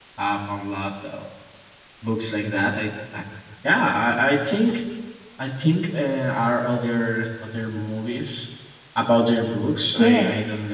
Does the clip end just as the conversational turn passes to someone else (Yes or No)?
Yes